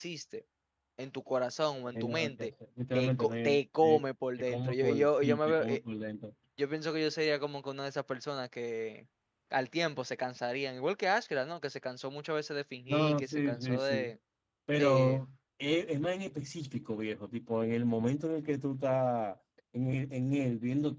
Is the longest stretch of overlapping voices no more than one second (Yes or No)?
No